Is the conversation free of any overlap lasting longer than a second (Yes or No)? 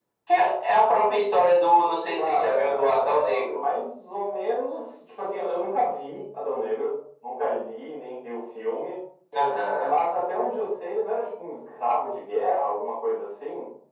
No